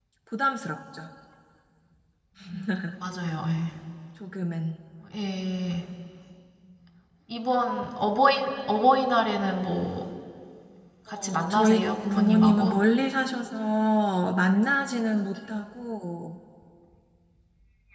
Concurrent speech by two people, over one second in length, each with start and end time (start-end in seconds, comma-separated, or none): 11.2-12.8